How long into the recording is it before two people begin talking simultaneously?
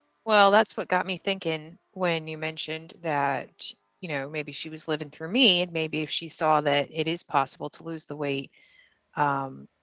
none

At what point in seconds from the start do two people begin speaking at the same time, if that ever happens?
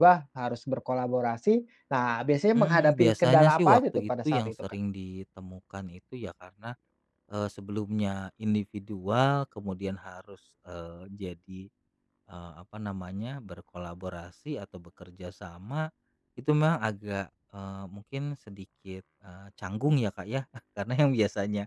2.5 s

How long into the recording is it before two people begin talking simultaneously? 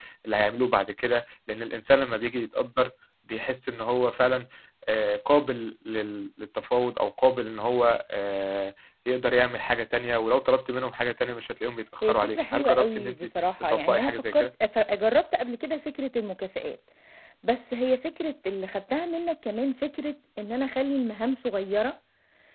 12.0 s

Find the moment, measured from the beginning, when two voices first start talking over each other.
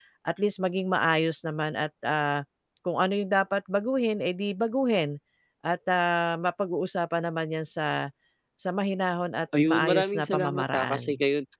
9.5 s

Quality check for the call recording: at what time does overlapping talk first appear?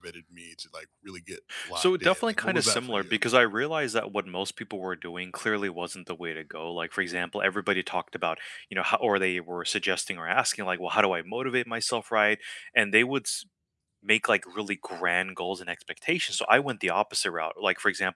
1.5 s

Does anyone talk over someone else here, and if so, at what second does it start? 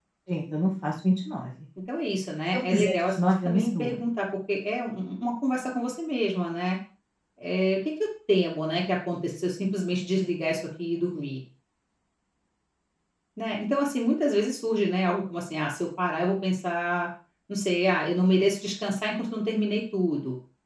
2.5 s

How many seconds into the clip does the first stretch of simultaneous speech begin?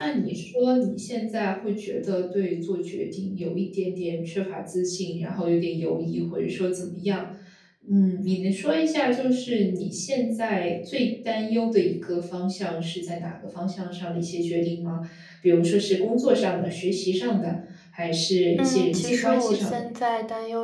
18.6 s

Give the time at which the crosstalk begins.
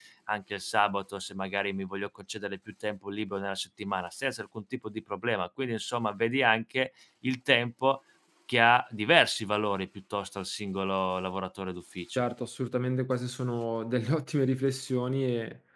none

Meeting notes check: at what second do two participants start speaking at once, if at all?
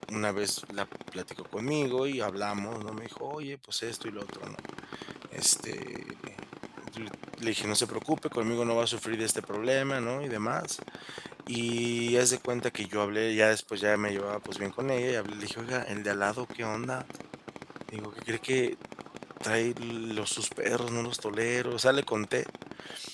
none

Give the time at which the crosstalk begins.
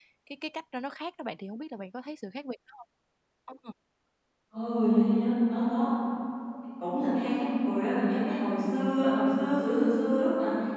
none

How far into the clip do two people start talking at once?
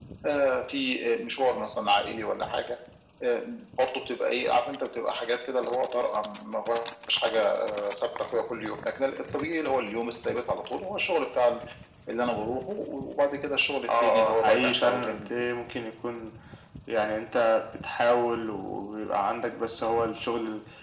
13.8 s

